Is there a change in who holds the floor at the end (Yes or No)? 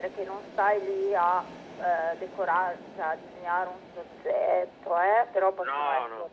No